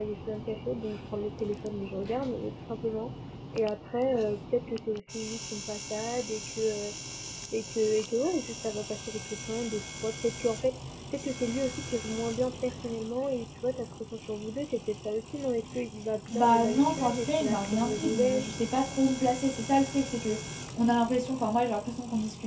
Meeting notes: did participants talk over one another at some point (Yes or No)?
Yes